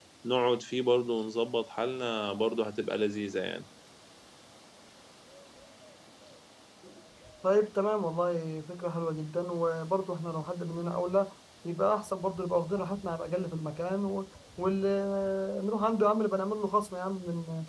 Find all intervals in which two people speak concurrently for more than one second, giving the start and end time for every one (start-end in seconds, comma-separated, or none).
none